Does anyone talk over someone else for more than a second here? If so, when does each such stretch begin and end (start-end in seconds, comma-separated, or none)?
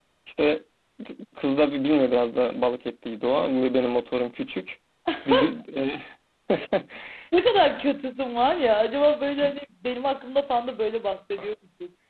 none